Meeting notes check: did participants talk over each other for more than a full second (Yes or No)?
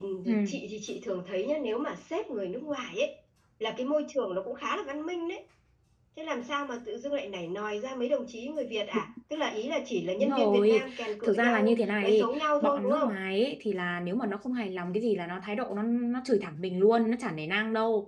Yes